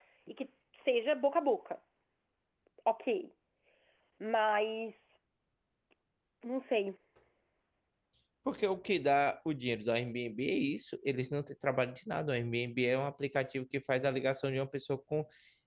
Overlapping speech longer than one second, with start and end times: none

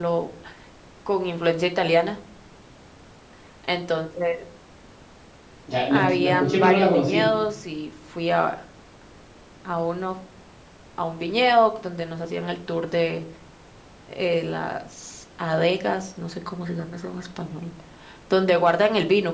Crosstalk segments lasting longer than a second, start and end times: 5.9-7.3

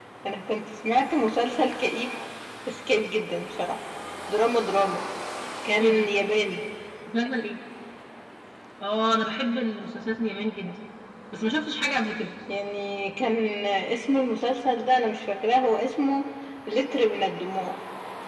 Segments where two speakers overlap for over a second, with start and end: none

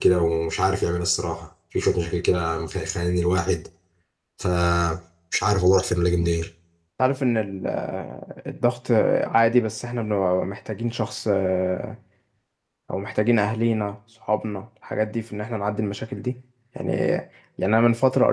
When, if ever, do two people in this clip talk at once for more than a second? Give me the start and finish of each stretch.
none

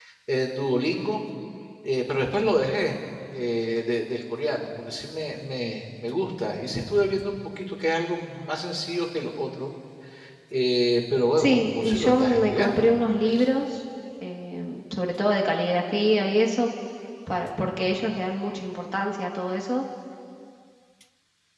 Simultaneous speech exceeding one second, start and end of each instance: 11.4-12.9

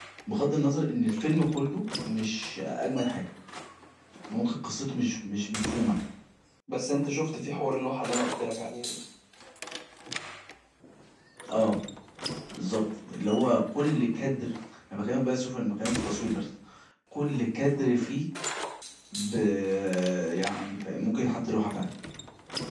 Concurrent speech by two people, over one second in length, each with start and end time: none

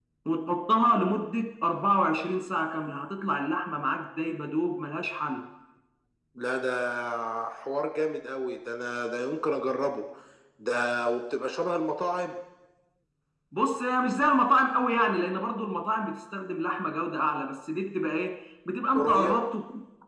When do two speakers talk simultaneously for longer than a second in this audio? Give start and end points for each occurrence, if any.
none

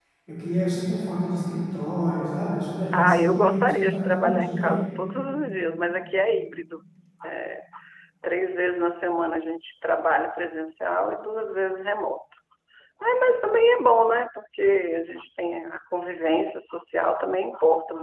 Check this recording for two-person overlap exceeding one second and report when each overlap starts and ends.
2.9-4.8

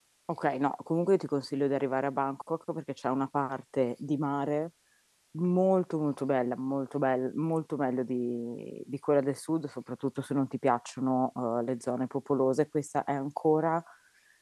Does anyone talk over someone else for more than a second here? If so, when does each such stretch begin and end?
none

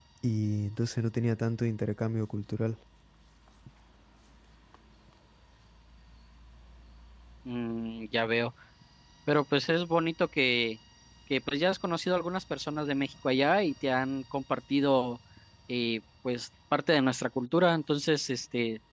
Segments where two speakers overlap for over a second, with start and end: none

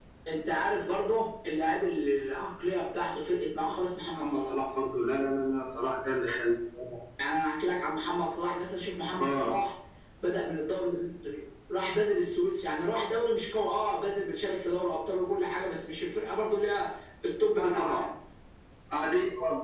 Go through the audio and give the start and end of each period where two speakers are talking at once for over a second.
none

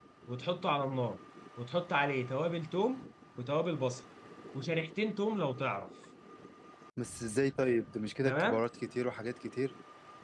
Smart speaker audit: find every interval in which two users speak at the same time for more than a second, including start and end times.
none

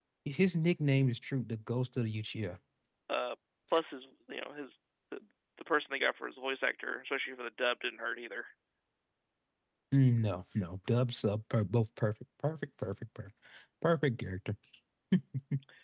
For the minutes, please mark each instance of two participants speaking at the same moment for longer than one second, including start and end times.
none

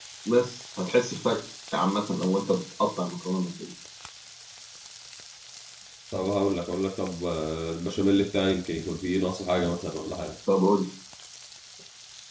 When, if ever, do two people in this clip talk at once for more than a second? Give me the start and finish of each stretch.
none

